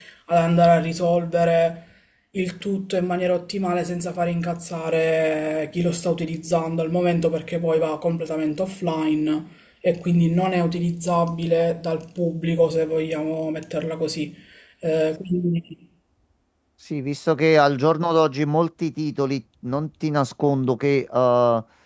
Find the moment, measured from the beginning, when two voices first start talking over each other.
none

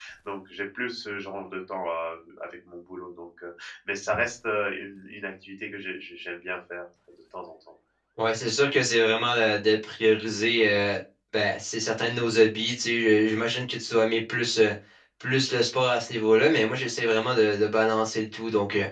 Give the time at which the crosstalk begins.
none

